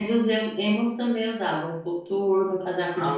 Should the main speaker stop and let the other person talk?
Yes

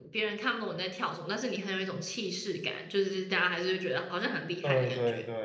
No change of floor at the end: No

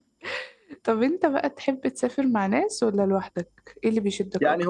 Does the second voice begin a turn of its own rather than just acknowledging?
Yes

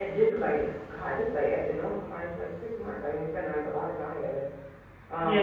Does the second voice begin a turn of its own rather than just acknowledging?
Yes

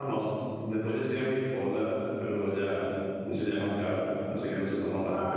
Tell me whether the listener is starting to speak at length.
Yes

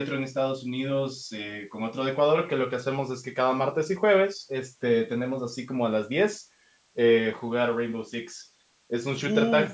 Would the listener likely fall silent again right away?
No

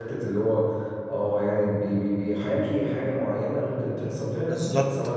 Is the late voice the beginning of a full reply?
Yes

